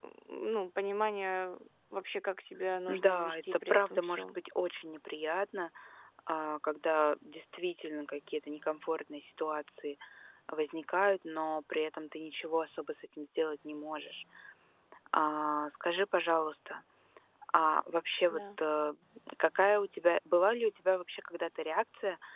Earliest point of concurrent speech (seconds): 2.9 s

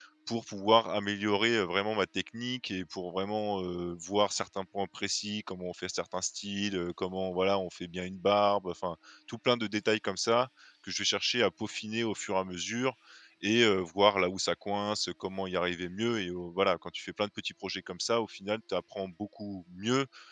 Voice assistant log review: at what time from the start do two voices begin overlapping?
none

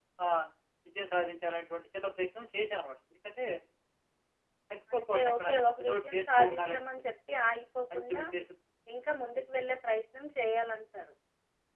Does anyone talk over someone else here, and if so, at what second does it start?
4.9 s

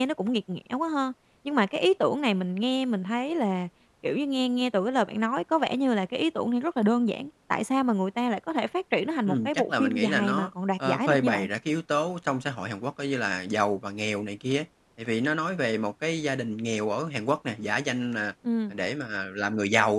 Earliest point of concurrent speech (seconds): 9.3 s

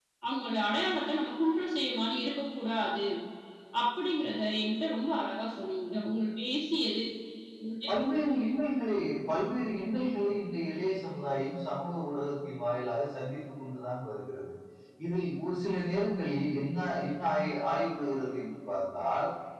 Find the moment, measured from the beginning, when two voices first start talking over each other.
none

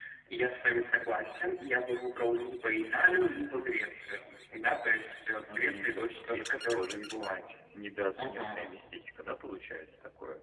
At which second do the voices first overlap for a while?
5.5 s

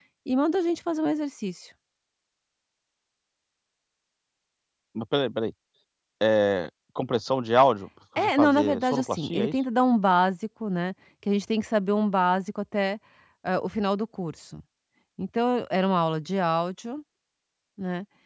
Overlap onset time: 8.2 s

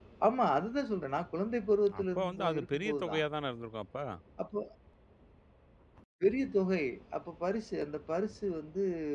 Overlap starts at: 1.9 s

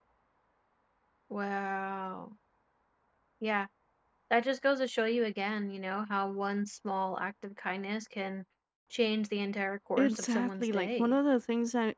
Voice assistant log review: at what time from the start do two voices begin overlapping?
10.0 s

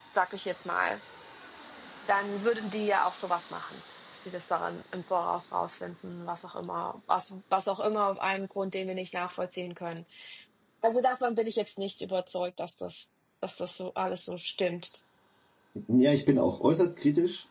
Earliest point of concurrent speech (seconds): none

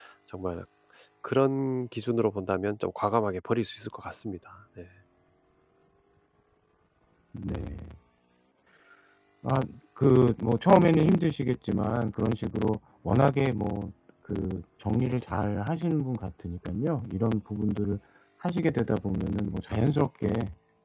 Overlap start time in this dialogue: none

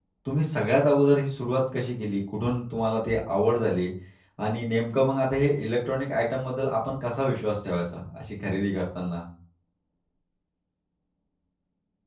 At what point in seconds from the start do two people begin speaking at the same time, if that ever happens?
none

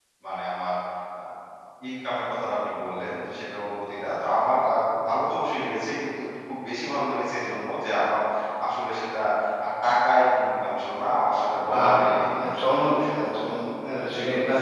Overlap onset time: 11.7 s

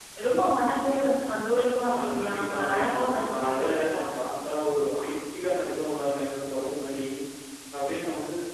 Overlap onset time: 1.8 s

